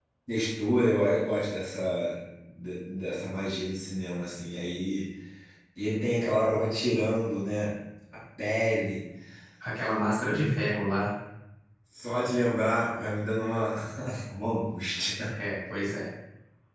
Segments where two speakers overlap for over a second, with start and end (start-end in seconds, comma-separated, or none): none